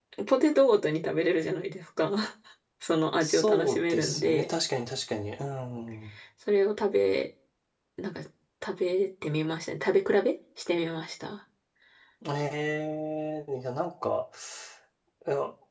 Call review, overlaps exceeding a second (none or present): present